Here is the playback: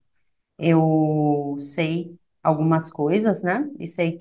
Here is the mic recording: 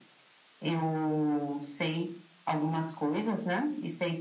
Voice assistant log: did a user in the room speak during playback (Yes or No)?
No